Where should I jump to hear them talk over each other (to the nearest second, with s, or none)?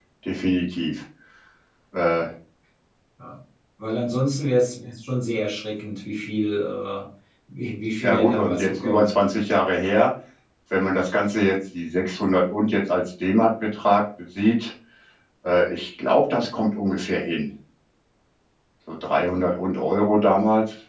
8 s